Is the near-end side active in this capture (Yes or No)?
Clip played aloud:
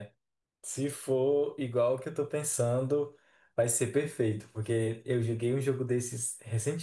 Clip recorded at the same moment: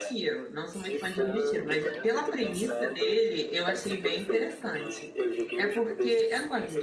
Yes